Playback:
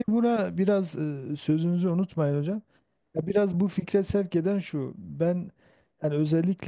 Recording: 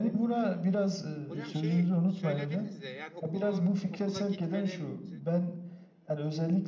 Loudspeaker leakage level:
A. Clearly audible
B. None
A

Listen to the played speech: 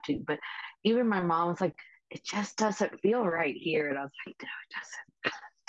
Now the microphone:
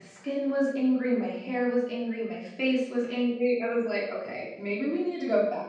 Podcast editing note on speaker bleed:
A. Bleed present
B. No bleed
B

